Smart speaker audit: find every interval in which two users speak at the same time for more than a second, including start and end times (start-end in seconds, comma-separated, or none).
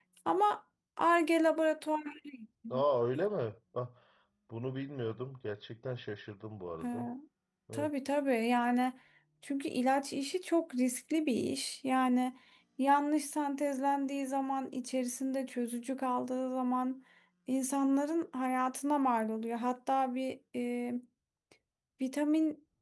none